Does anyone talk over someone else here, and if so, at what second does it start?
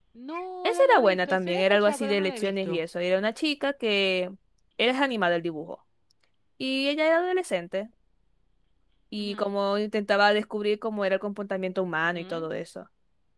1 s

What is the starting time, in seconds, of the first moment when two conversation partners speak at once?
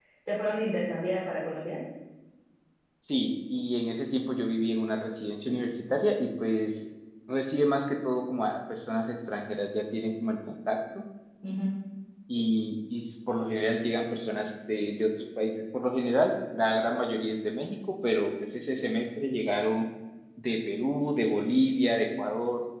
none

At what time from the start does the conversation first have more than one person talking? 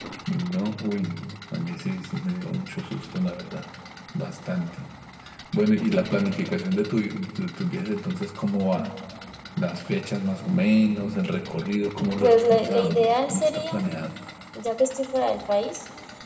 12 s

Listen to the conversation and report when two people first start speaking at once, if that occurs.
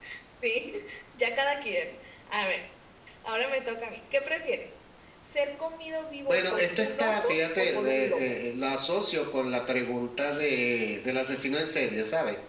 6 s

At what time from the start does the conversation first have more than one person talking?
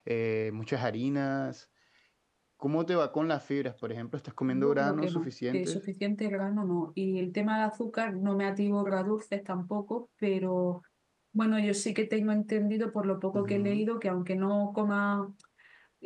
4 s

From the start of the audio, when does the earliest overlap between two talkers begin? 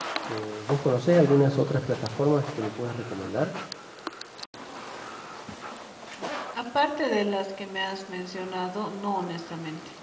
none

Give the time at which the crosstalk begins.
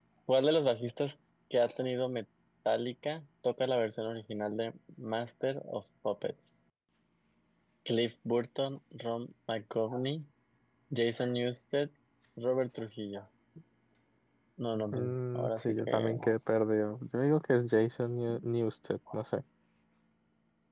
15 s

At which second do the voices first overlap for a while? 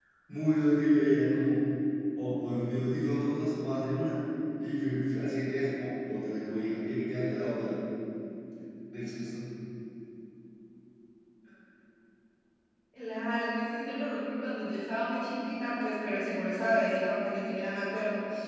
none

